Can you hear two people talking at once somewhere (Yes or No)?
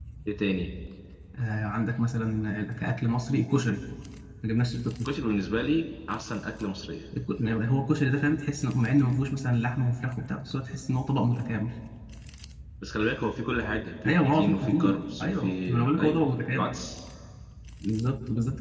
Yes